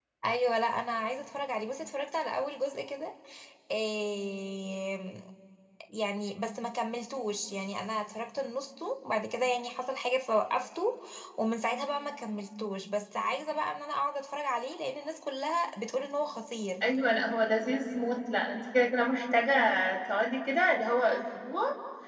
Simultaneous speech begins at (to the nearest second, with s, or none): none